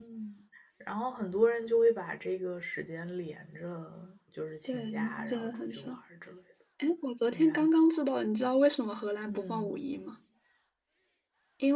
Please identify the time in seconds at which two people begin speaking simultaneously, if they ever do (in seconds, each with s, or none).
4.7 s